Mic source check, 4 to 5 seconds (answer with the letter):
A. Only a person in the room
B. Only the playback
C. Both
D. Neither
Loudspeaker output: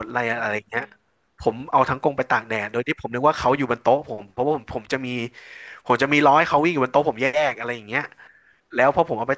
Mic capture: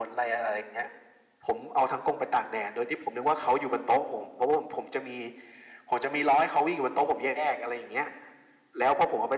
B